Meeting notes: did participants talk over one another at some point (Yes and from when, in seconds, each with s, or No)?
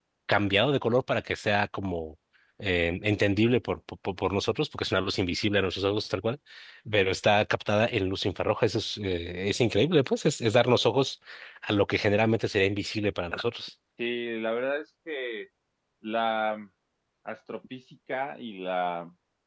No